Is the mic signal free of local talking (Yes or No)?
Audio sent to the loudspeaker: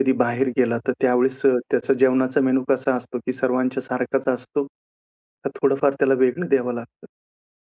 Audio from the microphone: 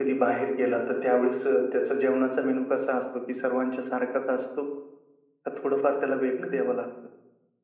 Yes